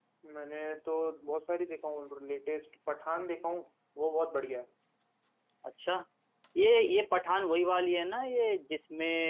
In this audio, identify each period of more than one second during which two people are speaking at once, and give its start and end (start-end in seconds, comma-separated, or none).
none